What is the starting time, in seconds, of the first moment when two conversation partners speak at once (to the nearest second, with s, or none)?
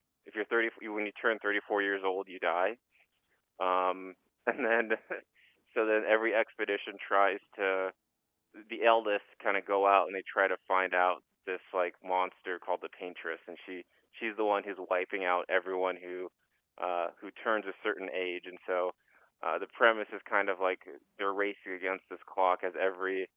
none